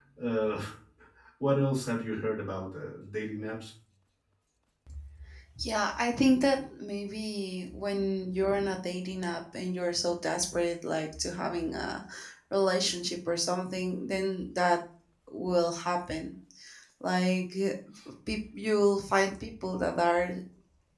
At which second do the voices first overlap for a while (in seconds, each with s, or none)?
none